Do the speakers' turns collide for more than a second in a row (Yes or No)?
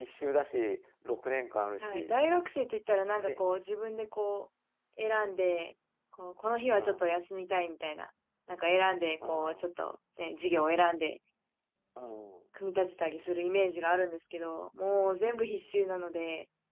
No